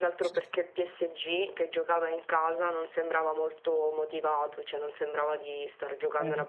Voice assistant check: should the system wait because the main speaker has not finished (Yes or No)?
Yes